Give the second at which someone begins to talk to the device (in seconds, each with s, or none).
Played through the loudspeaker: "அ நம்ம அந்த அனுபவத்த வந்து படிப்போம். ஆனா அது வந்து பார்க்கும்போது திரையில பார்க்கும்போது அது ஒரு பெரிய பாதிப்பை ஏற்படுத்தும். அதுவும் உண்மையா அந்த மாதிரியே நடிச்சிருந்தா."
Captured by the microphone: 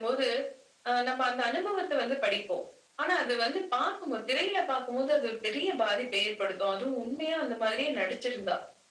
none